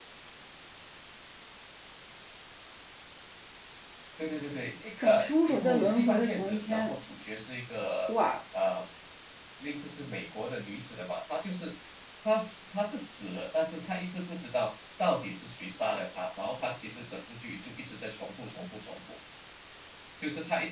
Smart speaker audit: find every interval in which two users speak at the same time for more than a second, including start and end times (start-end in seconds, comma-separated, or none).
5.0-7.0